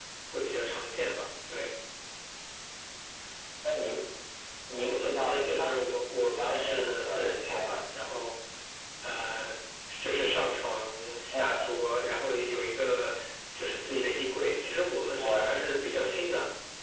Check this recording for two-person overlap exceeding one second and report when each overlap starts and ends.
4.7-7.8

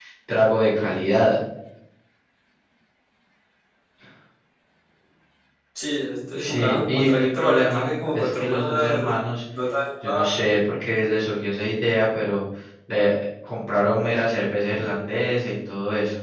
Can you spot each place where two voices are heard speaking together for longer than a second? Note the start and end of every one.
6.4-9.0

